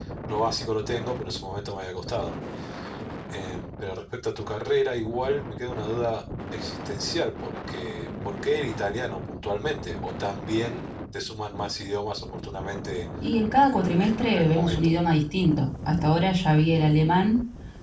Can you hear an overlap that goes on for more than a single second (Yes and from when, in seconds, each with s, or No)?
Yes, from 13.7 s